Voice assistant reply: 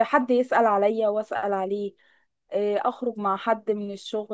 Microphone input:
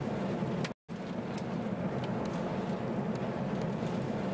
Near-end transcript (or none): none